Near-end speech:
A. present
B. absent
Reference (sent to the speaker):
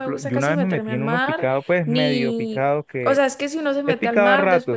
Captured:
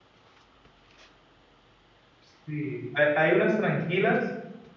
A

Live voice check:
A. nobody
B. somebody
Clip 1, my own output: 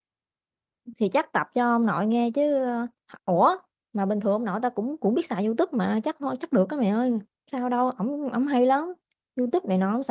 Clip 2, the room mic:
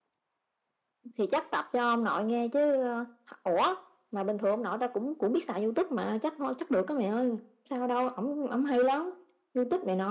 A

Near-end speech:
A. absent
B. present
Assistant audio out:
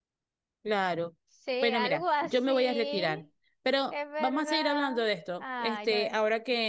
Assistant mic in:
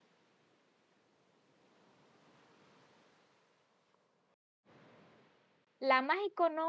B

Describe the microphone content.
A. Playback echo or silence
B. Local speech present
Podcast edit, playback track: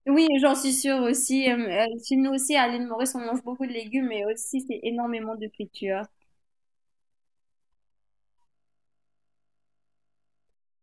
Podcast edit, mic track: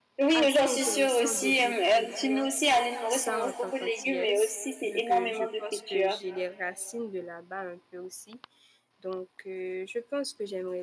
B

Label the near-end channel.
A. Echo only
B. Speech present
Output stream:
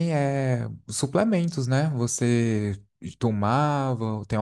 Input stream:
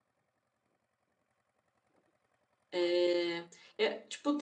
B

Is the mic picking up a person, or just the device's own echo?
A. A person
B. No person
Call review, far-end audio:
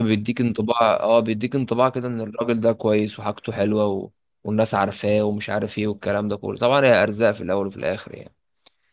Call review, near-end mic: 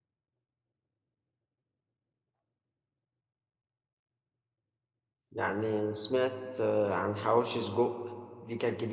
A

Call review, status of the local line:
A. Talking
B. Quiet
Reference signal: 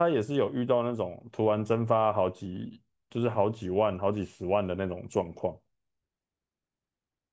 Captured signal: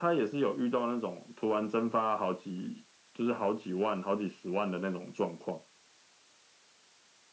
B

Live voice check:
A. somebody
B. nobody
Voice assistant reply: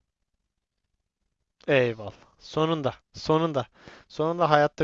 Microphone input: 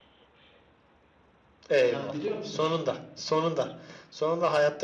A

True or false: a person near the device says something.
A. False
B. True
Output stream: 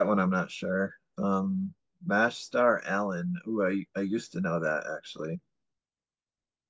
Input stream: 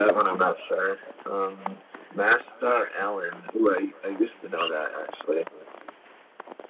A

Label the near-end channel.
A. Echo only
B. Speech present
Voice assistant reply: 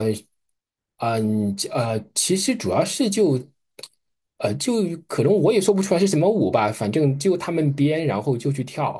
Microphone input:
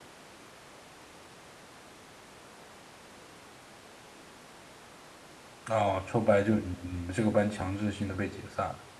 B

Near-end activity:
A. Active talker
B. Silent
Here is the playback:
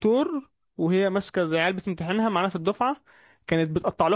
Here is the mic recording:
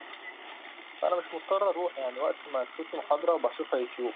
A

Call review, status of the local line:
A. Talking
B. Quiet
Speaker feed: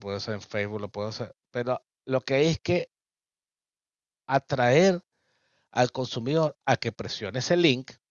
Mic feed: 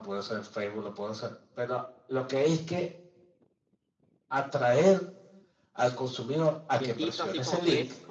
A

